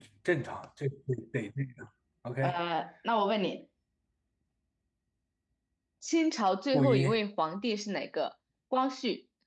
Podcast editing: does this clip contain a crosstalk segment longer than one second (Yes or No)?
No